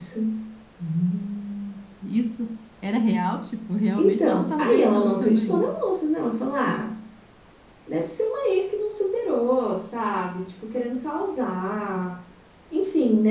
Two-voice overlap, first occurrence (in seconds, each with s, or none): 4.0 s